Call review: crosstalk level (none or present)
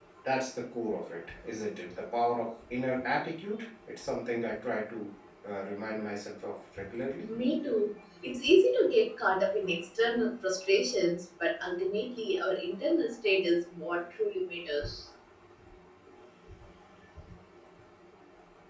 none